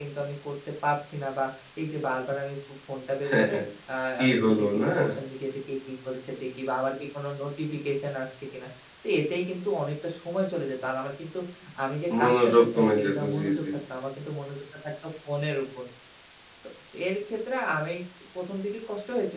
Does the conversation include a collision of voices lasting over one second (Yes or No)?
Yes